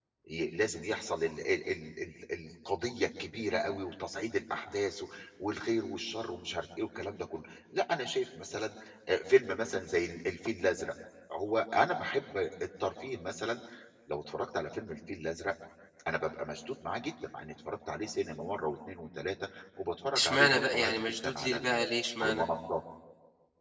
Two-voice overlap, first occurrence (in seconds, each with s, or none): 20.1 s